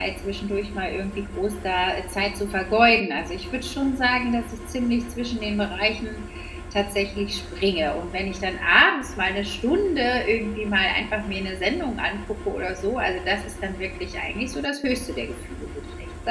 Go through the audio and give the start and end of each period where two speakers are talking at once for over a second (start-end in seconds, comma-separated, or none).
none